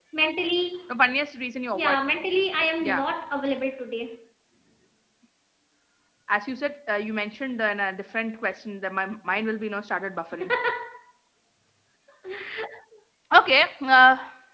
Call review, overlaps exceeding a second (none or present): none